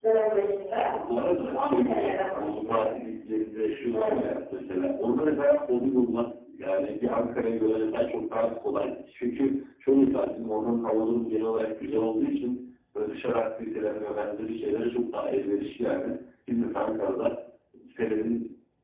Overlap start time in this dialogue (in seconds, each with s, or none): 1.5 s